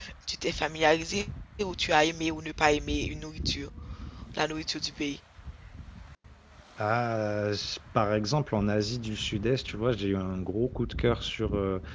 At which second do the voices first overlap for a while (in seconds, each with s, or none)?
none